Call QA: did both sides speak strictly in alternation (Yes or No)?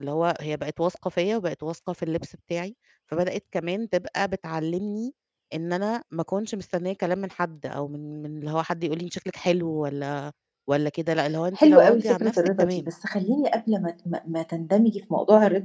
No